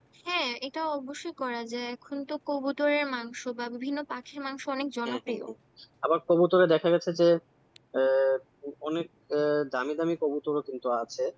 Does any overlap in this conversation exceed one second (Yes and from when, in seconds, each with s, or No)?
No